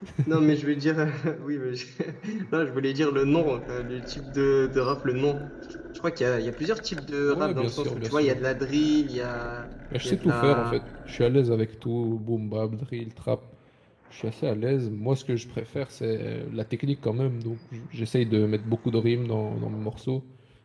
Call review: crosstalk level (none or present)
present